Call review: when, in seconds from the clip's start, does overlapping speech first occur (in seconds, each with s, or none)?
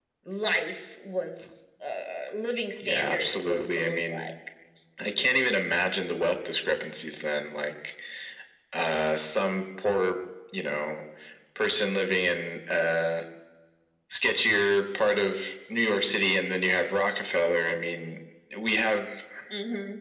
2.8 s